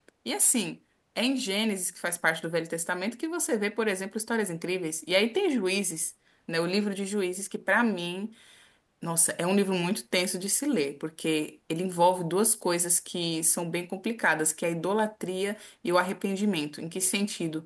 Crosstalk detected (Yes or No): No